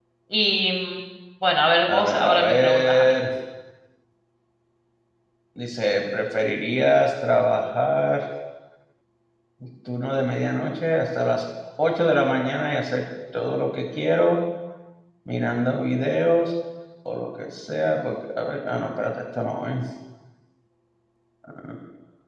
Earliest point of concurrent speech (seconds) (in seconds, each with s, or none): 1.9 s